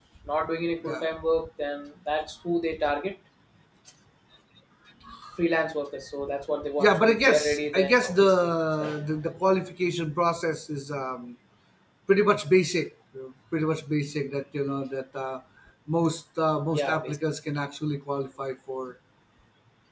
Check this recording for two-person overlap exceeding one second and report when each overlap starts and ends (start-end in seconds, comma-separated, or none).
6.8-8.9